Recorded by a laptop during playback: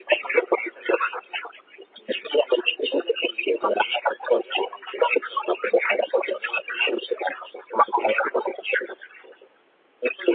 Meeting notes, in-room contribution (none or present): none